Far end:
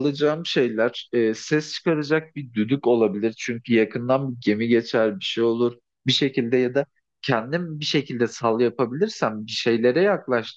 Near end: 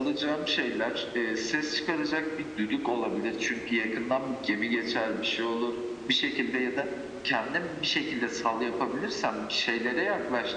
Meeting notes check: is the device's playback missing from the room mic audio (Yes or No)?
No